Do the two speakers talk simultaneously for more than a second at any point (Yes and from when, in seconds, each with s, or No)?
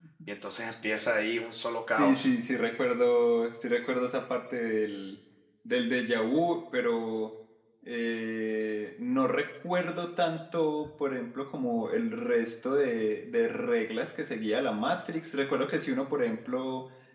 No